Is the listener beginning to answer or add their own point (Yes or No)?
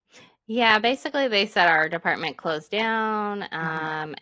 No